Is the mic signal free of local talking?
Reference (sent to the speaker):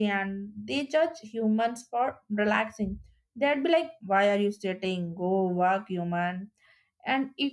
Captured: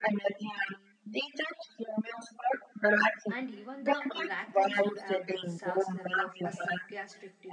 No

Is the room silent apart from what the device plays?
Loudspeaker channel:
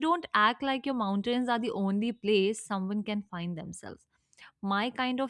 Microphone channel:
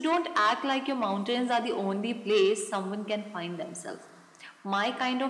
Yes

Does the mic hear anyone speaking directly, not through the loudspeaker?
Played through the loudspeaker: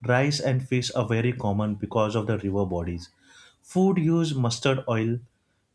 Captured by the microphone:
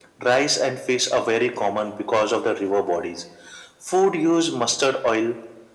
No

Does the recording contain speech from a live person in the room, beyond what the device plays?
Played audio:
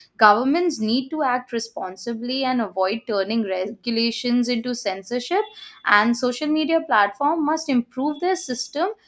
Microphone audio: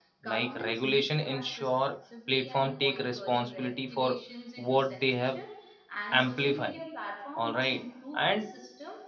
Yes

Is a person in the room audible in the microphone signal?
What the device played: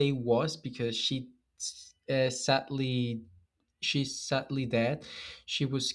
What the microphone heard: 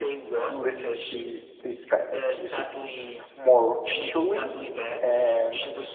Yes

